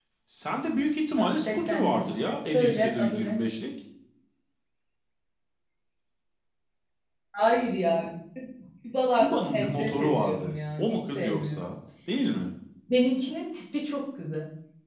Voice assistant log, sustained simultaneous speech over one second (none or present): present